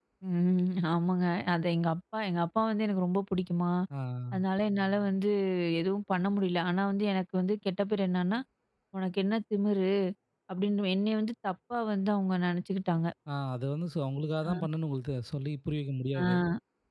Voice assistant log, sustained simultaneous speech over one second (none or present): none